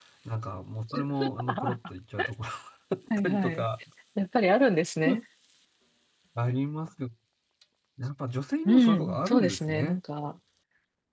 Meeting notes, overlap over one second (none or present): present